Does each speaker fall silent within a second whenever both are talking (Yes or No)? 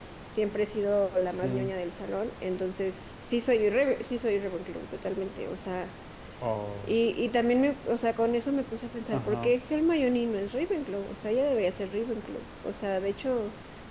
Yes